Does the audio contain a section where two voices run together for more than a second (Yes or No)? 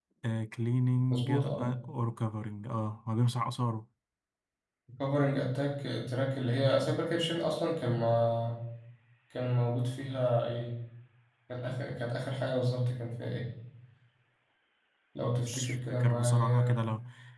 Yes